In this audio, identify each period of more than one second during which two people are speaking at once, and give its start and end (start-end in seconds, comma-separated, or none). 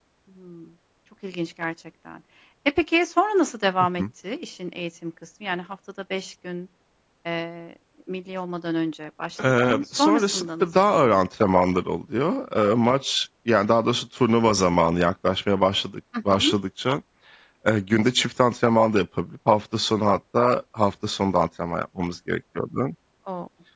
9.6-11.5